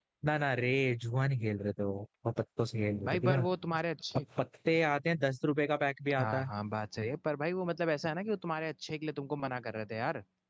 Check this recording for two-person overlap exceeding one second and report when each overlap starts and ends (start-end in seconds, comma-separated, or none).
none